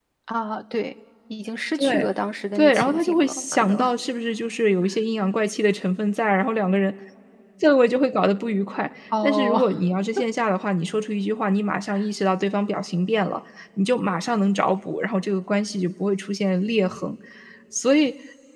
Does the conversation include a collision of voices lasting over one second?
Yes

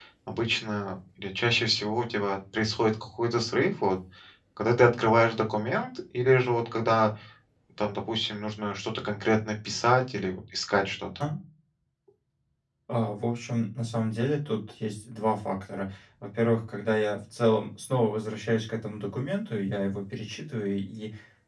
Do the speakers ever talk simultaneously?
No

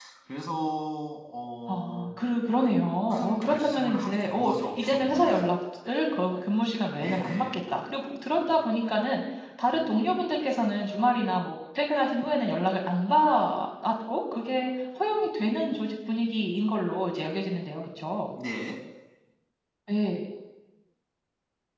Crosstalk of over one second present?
Yes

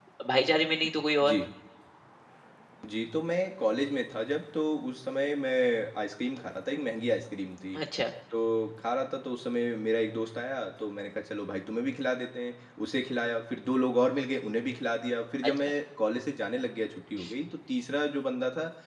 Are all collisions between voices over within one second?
Yes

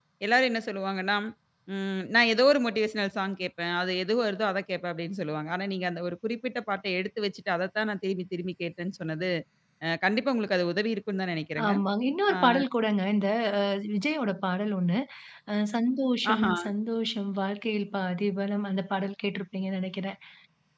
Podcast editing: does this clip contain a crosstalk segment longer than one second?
No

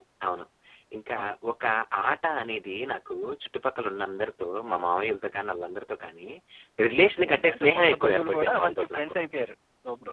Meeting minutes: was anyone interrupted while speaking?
Yes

